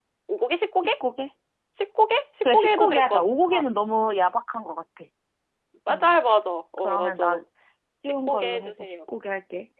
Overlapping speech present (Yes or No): Yes